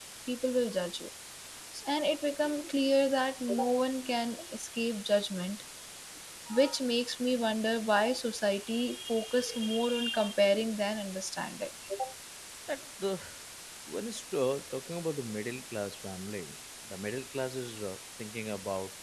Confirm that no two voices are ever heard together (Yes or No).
Yes